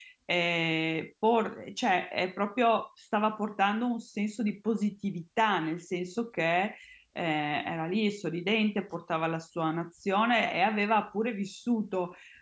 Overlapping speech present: No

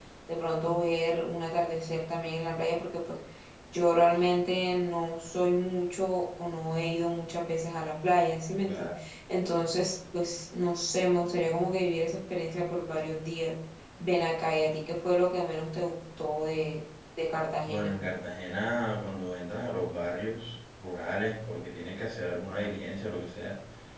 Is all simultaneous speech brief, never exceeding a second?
Yes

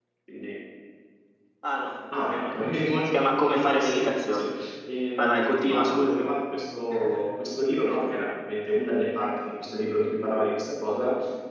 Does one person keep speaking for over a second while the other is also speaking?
Yes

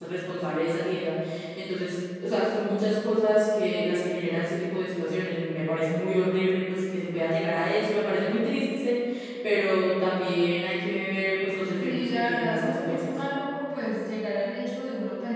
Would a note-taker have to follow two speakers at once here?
Yes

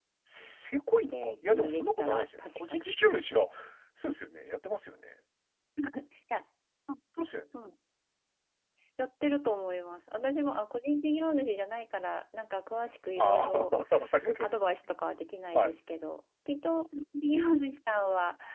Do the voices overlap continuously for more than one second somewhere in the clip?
Yes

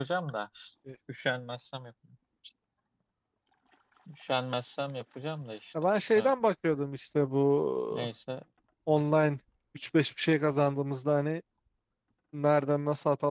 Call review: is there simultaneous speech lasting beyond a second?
No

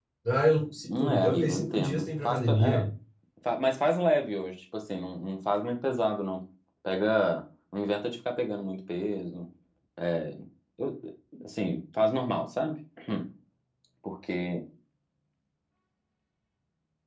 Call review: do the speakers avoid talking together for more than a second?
No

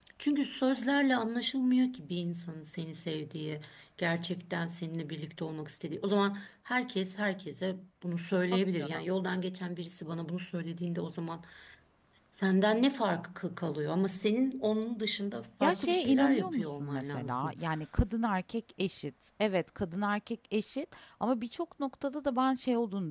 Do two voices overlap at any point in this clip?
Yes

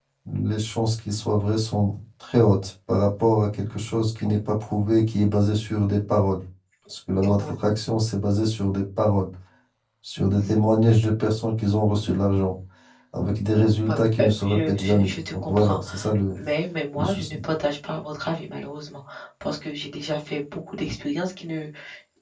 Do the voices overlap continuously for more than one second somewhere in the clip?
Yes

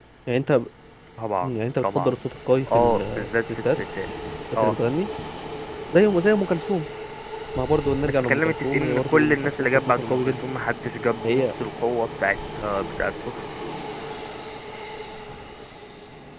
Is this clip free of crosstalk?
No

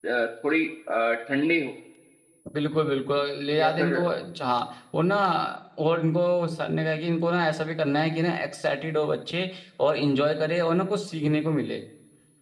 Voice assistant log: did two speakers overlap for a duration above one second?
No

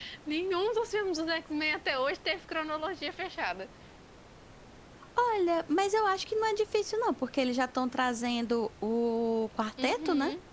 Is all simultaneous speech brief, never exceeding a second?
Yes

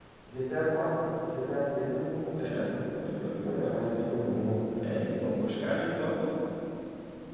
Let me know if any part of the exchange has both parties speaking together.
Yes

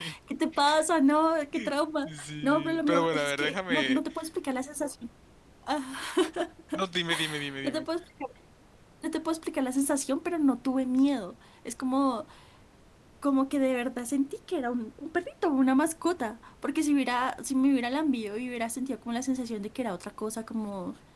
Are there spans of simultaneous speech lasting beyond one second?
Yes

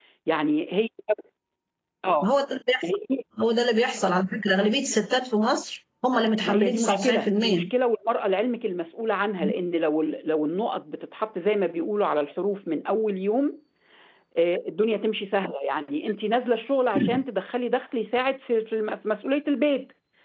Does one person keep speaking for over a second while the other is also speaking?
Yes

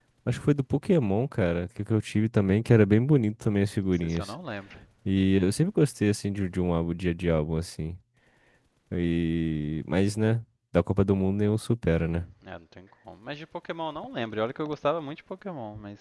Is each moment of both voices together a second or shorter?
Yes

